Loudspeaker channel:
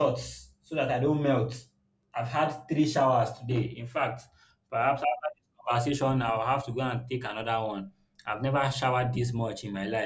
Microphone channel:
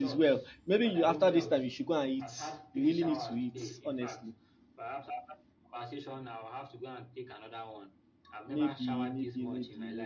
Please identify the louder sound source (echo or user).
user